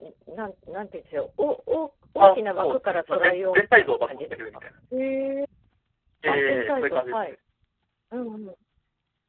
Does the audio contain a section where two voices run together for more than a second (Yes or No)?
Yes